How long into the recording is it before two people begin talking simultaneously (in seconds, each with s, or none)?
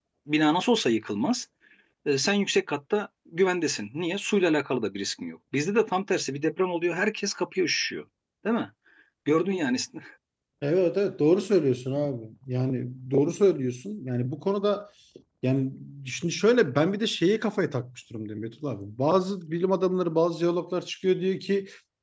none